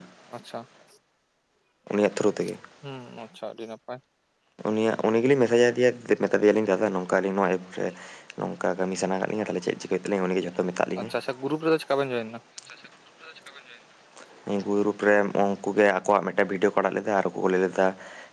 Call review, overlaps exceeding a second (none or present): none